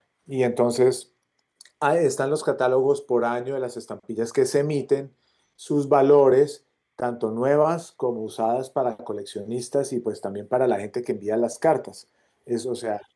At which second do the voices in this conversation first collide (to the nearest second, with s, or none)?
none